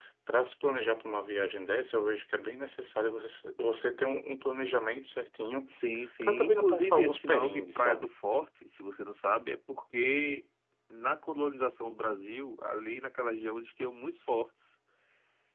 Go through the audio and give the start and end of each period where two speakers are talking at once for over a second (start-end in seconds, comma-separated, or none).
6.2-8.1